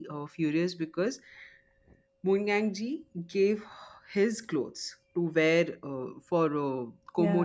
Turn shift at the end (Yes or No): No